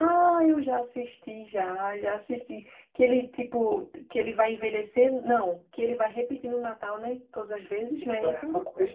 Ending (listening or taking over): taking over